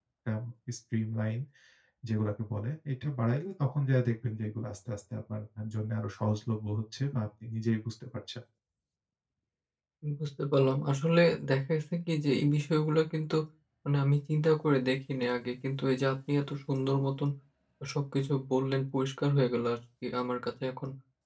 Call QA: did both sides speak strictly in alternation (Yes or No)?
Yes